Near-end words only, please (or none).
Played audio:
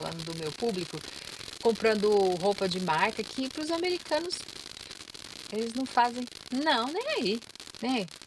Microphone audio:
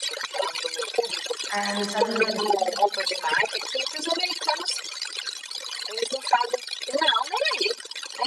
É, nos Estados Unidos